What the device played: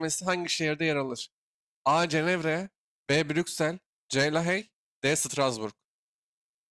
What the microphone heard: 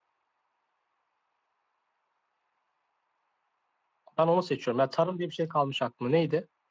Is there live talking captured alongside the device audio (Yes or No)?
Yes